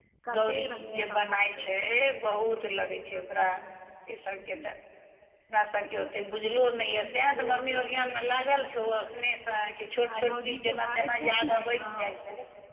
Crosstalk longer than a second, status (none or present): present